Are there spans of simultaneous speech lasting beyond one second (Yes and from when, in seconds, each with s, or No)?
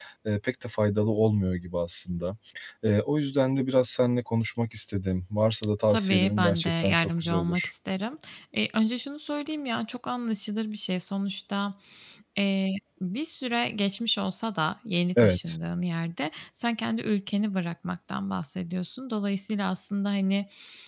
Yes, from 5.9 s